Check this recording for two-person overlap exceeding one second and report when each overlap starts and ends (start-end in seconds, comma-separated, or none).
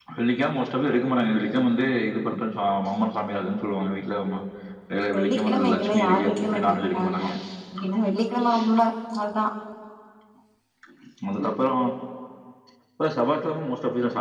5.0-7.2